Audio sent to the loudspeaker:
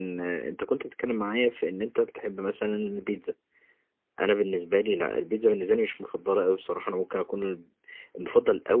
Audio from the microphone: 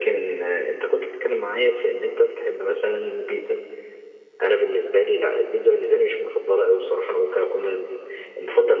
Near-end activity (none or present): none